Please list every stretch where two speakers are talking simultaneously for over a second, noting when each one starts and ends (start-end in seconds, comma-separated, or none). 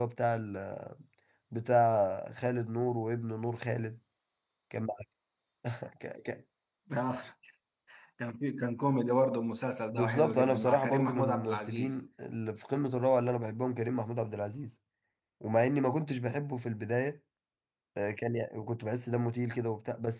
9.9-11.9